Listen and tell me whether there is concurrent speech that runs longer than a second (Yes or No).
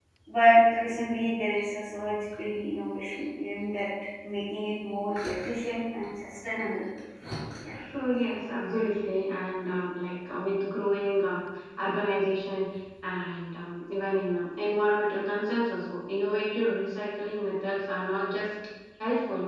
No